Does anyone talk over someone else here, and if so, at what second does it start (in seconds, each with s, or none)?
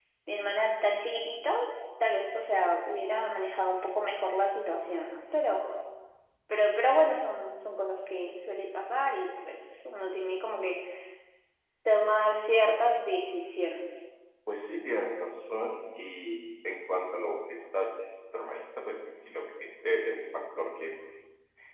none